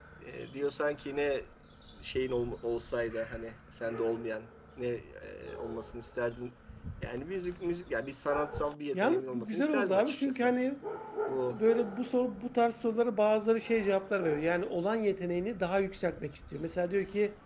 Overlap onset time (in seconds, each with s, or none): 8.9 s